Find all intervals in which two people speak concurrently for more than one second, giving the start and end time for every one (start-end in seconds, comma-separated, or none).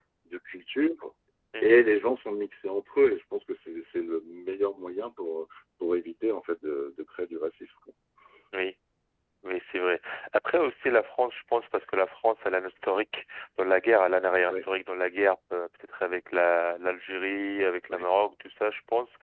none